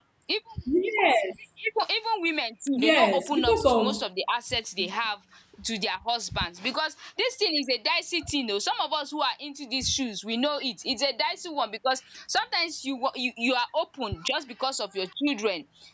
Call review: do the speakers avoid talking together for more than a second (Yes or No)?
No